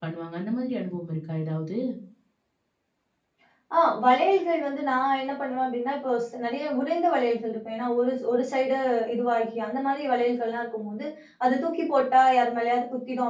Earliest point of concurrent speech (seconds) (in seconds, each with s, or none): none